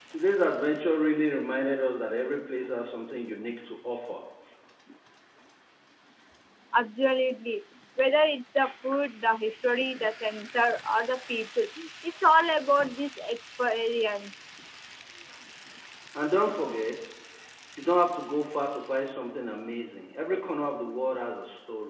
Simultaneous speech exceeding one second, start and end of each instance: none

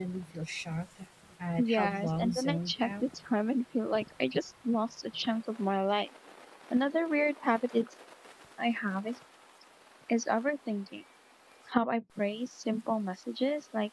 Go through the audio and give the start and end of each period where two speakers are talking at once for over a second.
1.6-3.0

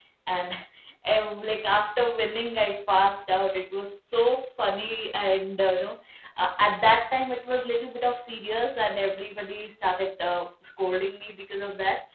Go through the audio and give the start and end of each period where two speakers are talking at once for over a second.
none

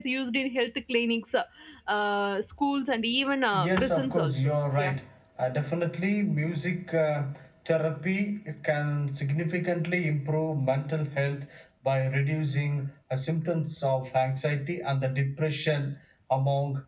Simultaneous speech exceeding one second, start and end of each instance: 3.7-4.9

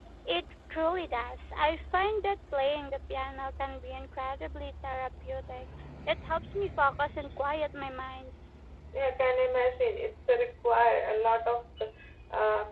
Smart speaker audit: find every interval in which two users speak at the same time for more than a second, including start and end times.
none

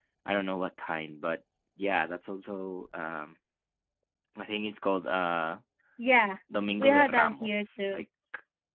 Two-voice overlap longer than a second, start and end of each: 6.8-8.0

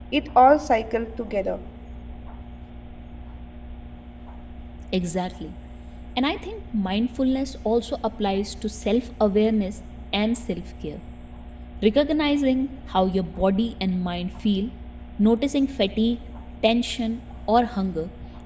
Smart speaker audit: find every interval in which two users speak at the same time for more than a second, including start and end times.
none

